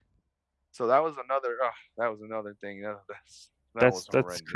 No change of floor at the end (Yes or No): No